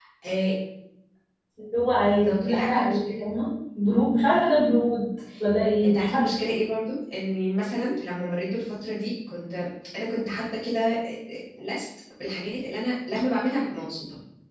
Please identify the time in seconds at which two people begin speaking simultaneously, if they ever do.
2.0 s

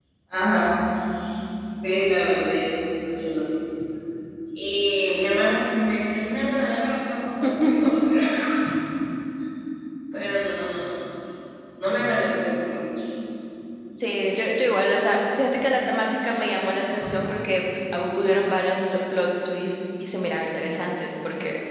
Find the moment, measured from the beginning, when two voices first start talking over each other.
none

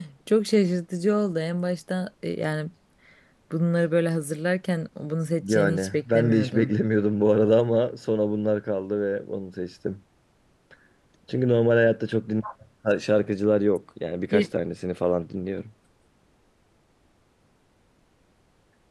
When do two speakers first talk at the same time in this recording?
5.4 s

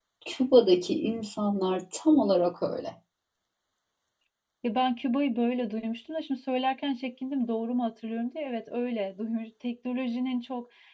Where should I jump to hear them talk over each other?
none

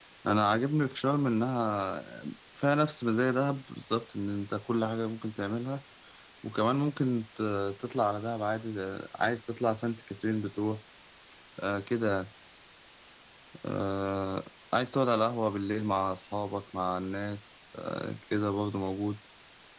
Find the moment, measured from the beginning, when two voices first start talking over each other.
none

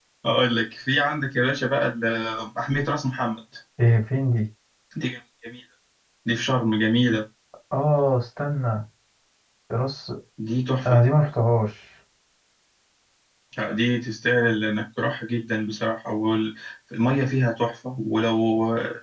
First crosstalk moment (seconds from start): none

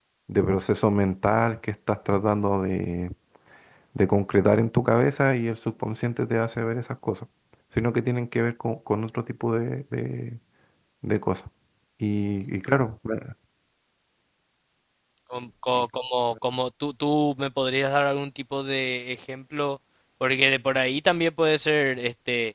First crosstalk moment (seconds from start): none

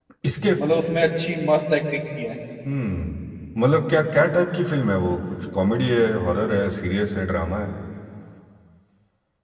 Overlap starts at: none

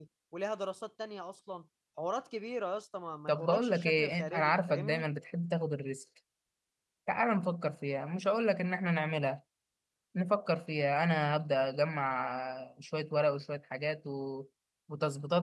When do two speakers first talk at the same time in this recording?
3.3 s

